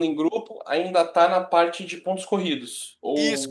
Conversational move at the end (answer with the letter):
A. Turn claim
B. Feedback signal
A